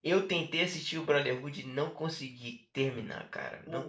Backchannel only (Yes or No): Yes